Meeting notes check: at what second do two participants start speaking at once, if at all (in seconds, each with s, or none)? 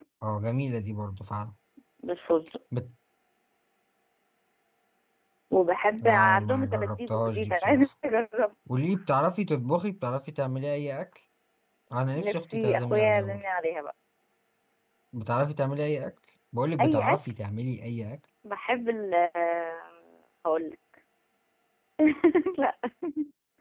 6.0 s